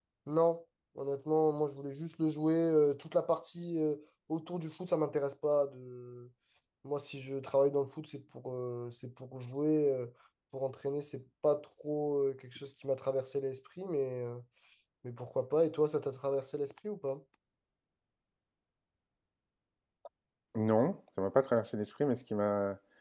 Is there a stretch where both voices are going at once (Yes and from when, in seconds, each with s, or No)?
No